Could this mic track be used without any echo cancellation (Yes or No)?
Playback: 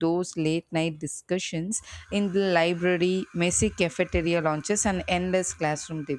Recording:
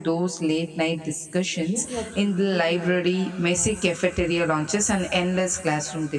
No